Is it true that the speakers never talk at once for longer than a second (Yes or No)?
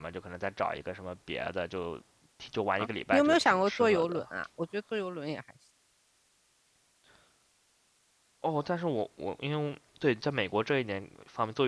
No